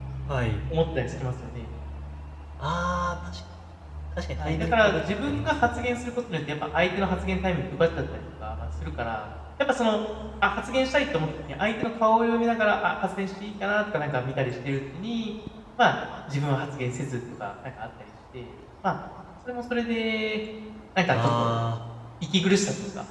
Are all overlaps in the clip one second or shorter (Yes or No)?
No